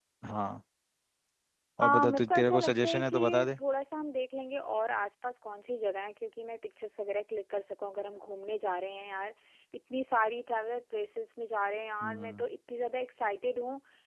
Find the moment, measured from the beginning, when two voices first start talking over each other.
1.8 s

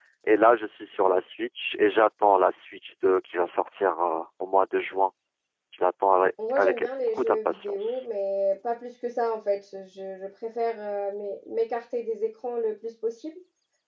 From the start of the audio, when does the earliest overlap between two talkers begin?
6.6 s

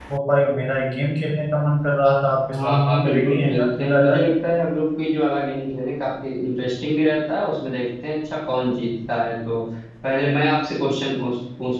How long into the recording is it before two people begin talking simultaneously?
2.5 s

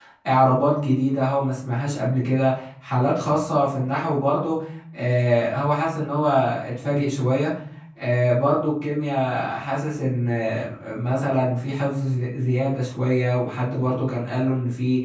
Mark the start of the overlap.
none

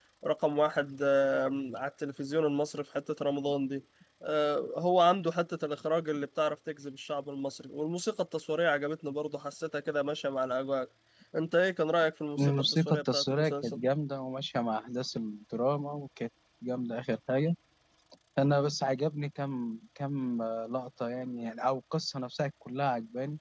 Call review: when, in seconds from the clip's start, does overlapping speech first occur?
12.4 s

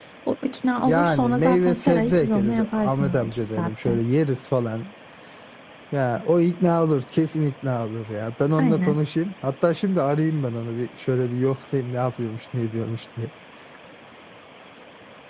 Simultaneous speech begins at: 0.8 s

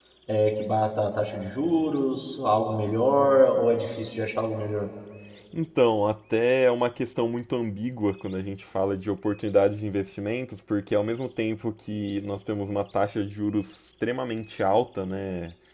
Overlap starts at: none

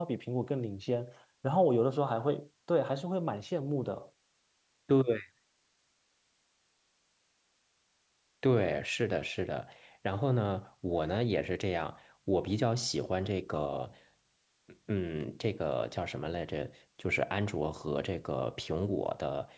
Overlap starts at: none

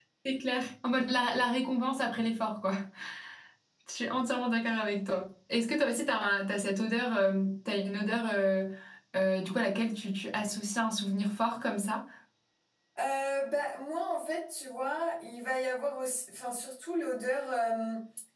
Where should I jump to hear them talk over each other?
none

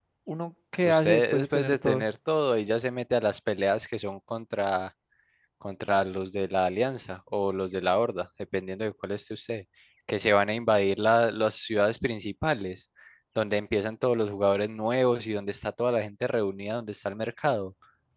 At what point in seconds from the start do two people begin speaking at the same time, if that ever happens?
0.8 s

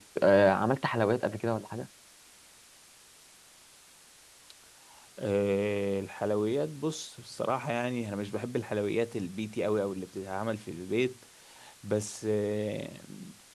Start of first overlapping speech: none

